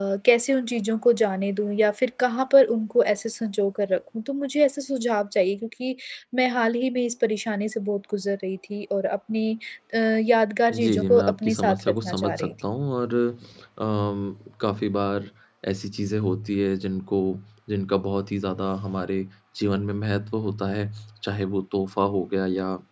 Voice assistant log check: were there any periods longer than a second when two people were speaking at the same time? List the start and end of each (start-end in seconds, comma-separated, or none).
10.7-12.5